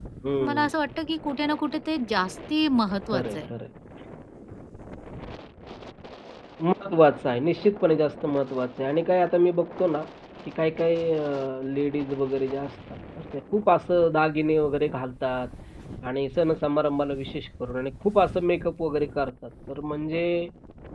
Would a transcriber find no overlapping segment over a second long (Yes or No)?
Yes